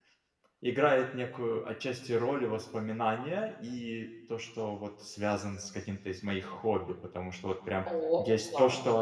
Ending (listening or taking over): listening